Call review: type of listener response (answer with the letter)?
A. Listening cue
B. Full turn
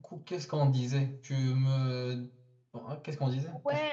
B